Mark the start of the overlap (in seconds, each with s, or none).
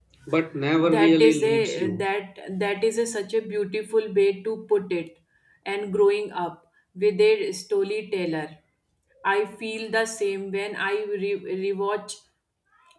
0.8 s